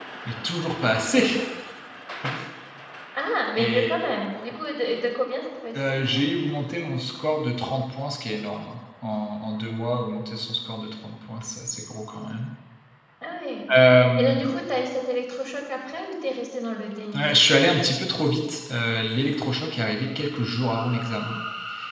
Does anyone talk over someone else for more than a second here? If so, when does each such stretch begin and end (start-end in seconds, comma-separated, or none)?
none